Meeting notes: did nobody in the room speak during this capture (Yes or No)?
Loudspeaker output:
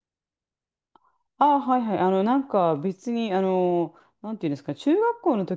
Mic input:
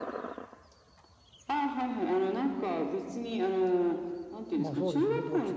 No